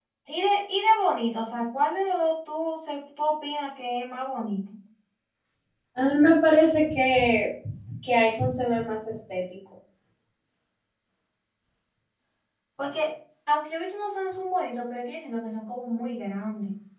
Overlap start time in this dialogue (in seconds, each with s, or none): none